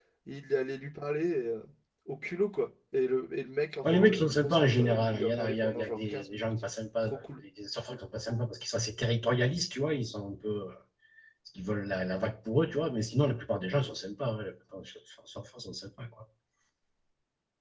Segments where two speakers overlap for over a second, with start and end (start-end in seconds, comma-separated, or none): 3.8-6.5